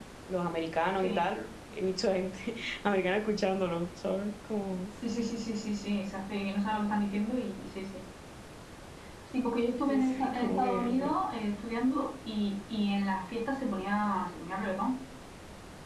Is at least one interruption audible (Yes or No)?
Yes